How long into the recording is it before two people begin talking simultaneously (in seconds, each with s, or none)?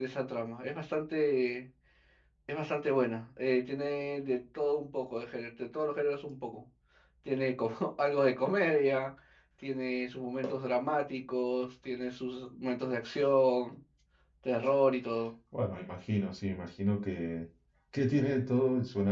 none